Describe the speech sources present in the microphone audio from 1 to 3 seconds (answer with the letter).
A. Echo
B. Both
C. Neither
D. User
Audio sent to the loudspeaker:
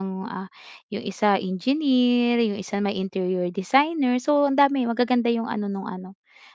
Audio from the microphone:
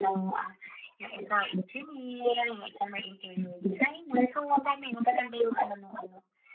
A